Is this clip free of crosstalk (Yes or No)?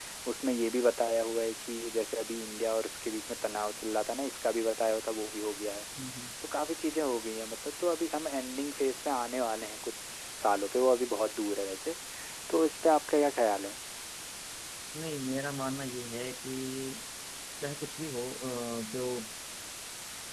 Yes